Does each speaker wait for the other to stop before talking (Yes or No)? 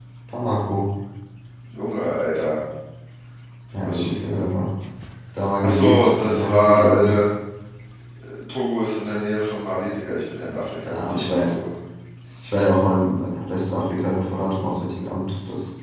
No